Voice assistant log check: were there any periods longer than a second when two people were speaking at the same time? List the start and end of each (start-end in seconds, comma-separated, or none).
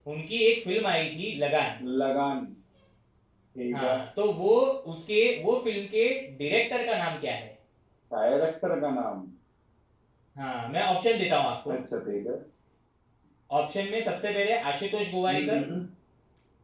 none